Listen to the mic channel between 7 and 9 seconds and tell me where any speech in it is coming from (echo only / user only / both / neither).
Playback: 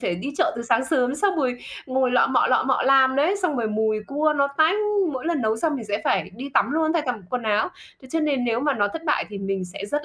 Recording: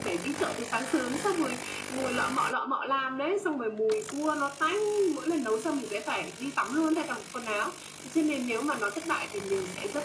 echo only